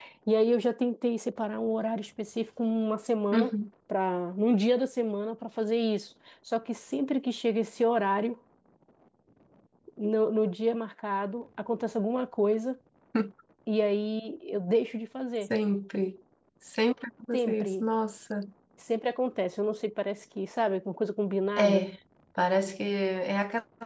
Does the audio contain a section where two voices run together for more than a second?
No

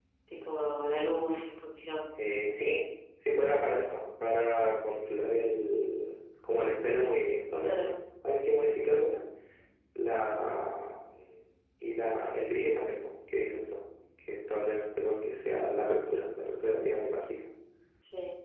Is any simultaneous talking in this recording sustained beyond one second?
No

